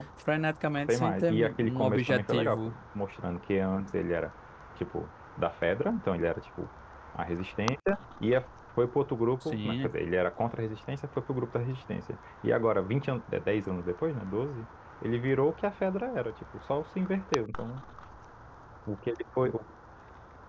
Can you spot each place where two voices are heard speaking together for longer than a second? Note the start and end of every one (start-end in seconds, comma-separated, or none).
0.9-2.7